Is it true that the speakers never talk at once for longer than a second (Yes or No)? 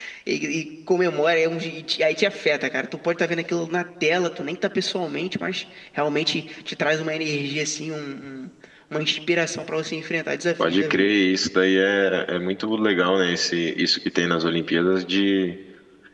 Yes